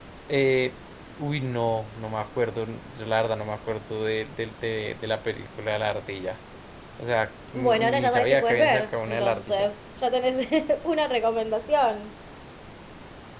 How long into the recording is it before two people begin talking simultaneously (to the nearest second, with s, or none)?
8 s